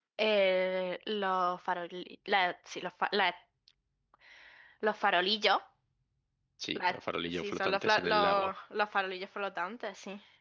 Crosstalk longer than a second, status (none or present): present